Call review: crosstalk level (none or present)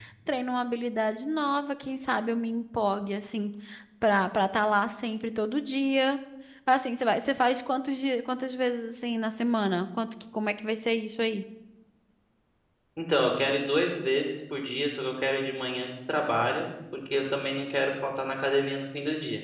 none